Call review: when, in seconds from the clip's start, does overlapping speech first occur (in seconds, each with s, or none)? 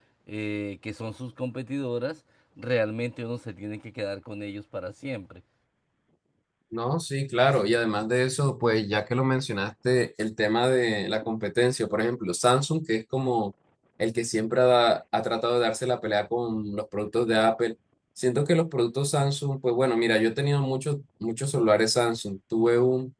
none